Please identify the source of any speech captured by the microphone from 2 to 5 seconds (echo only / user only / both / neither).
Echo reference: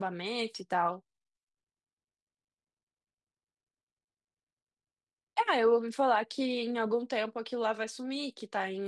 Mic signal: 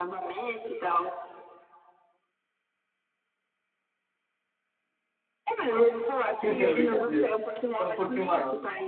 neither